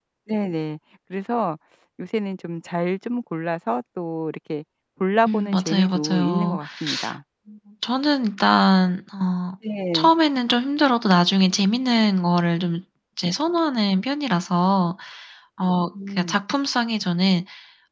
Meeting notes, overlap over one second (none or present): present